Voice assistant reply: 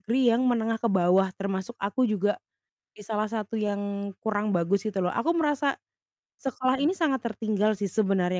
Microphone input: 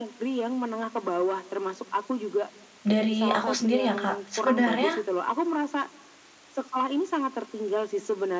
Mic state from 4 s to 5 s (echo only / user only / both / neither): both